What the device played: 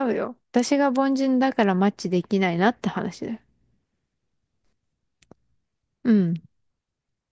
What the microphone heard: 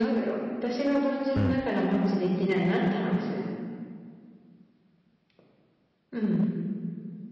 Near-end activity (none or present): present